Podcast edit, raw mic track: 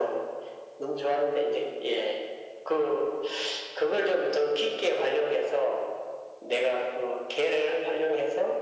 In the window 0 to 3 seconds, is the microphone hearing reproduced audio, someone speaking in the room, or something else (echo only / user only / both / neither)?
echo only